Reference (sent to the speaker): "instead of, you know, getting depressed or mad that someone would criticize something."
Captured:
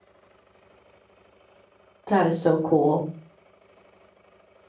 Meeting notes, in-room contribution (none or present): present